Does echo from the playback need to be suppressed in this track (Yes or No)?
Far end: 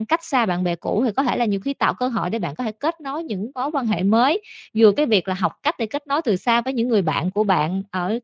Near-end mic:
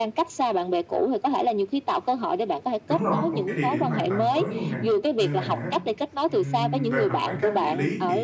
Yes